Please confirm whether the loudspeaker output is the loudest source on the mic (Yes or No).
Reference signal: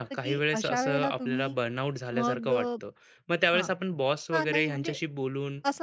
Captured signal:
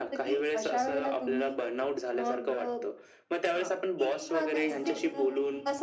Yes